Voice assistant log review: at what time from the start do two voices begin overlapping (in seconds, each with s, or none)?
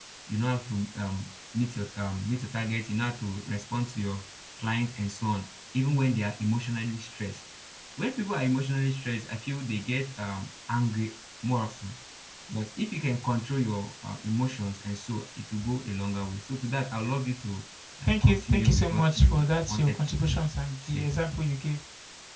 18.1 s